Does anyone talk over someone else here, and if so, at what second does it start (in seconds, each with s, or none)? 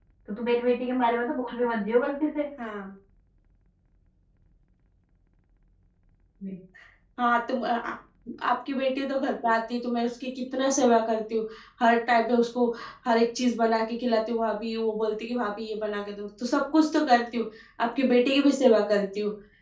none